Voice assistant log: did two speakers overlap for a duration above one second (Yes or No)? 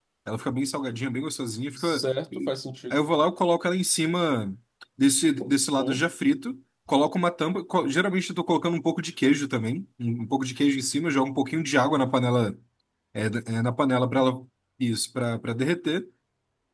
No